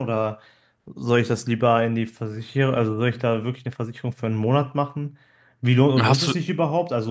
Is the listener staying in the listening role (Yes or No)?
Yes